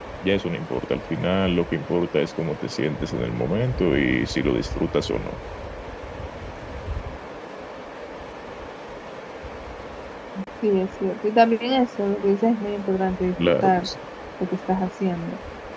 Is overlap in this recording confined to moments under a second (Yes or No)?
Yes